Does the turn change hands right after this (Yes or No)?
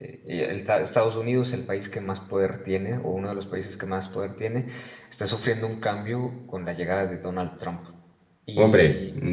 Yes